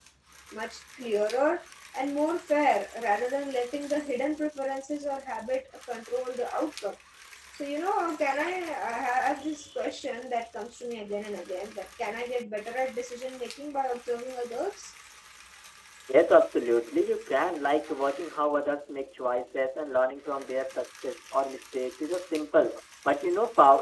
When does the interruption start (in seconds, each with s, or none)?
none